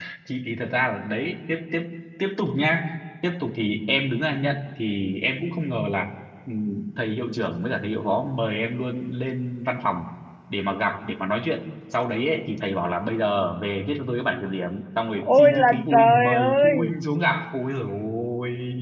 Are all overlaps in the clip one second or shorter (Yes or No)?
No